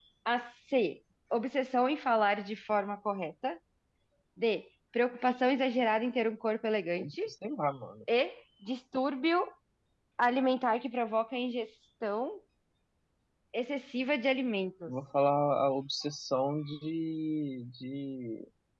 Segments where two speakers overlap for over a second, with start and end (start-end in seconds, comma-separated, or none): none